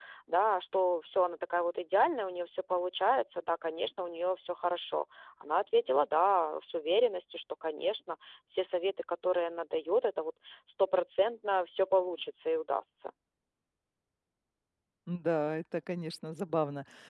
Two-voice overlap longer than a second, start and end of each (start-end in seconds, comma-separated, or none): none